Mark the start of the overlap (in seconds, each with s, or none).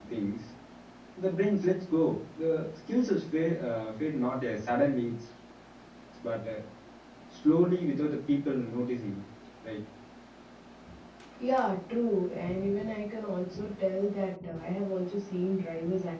none